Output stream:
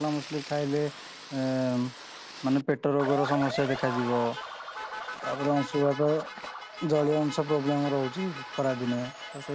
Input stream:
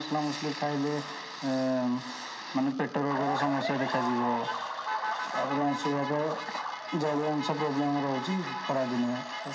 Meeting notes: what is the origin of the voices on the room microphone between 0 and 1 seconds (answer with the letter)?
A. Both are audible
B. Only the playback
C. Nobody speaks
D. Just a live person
B